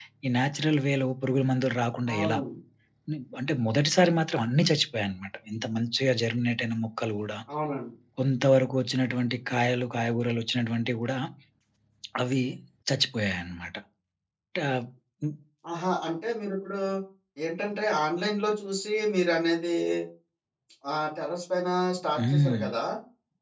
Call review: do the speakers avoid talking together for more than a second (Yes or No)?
Yes